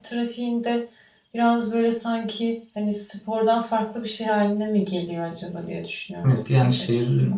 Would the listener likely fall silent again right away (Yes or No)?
No